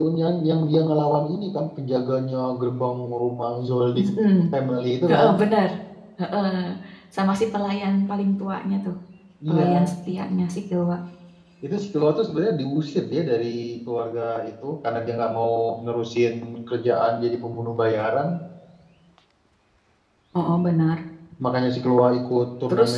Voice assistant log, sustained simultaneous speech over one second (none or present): none